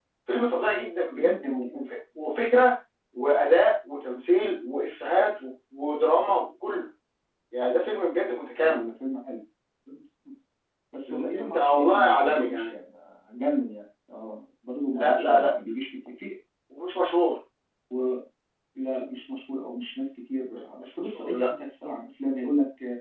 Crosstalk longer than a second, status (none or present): present